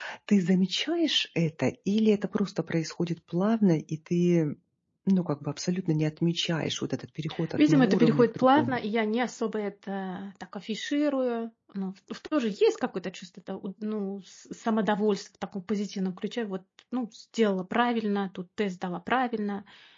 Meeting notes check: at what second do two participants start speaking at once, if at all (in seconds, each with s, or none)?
7.6 s